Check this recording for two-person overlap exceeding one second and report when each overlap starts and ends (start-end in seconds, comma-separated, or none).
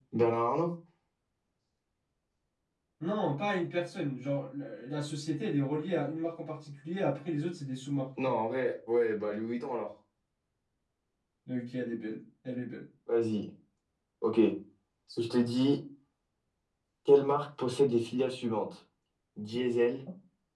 none